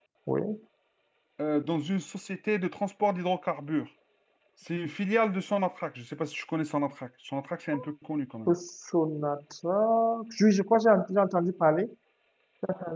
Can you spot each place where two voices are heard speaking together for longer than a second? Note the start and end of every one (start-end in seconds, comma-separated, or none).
none